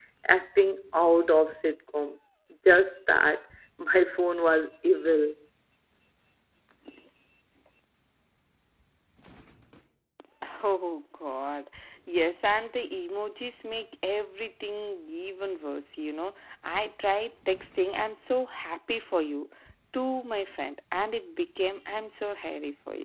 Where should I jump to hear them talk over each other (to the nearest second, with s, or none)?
none